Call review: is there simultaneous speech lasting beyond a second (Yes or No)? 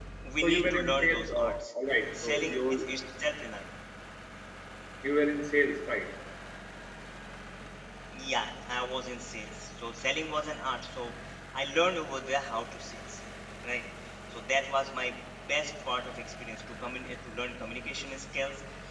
Yes